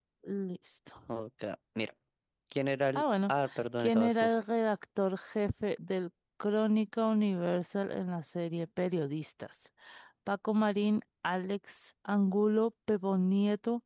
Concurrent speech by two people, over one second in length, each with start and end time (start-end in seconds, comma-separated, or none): none